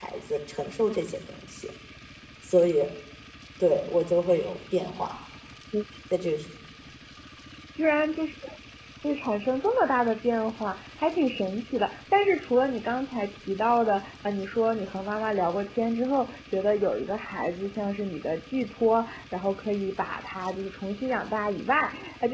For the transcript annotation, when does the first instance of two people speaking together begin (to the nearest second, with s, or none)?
none